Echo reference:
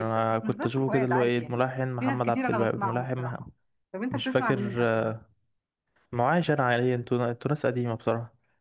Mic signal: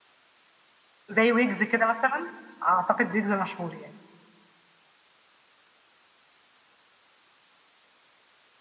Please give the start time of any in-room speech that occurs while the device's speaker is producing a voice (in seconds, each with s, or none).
1.1 s